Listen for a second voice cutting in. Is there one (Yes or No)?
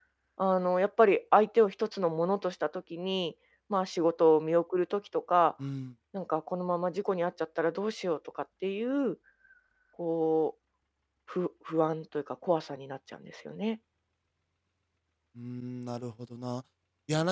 No